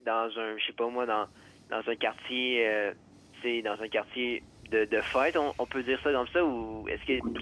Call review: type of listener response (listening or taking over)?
taking over